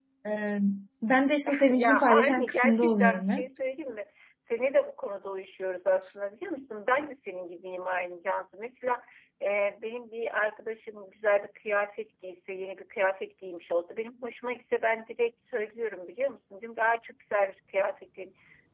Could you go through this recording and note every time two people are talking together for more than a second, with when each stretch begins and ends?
1.7-3.5

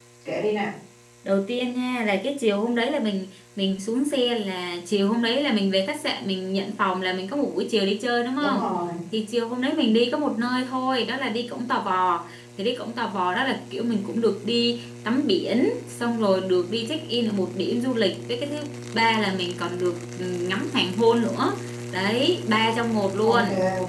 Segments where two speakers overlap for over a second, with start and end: none

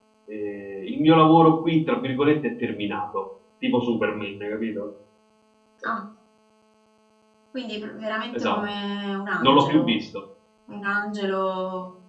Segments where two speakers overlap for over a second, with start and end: none

